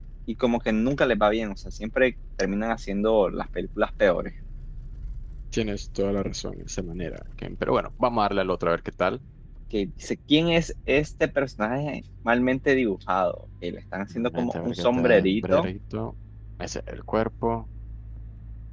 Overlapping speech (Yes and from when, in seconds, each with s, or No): Yes, from 14.1 s